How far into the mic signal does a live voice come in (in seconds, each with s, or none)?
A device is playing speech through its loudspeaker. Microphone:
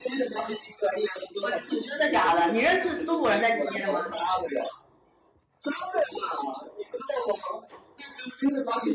1.4 s